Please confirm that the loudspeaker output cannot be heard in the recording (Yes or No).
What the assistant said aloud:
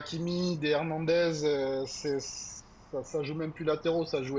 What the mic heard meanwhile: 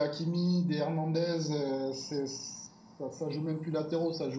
No